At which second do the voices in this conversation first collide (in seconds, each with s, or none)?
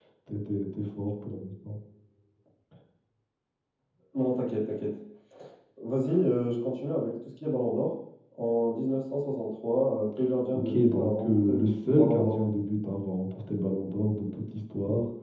10.7 s